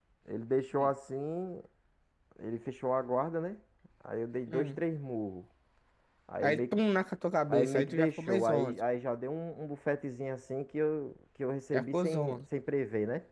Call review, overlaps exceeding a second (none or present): present